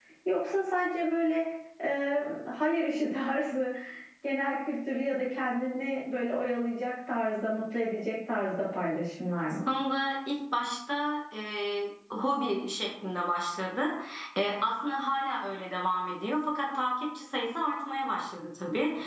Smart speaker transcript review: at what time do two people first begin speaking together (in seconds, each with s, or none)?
none